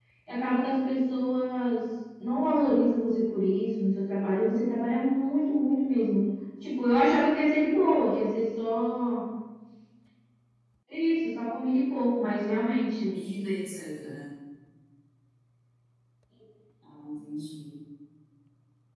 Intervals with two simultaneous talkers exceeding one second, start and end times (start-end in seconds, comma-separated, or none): none